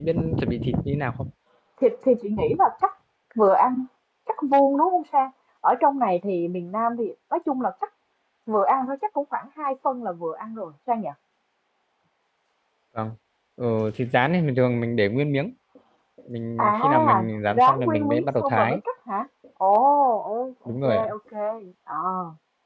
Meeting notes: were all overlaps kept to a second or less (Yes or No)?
No